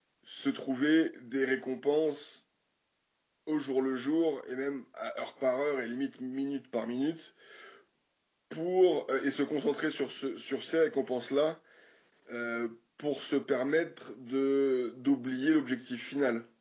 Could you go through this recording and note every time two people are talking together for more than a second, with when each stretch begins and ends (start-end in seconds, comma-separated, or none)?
none